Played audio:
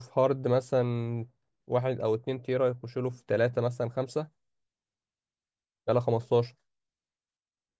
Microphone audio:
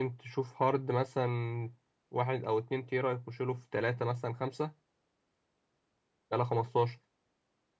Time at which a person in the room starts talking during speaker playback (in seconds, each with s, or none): none